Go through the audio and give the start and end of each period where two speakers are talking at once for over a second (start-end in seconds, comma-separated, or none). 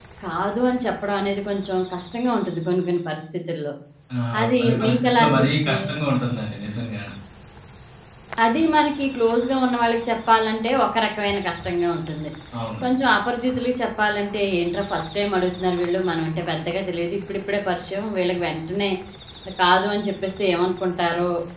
4.4-5.8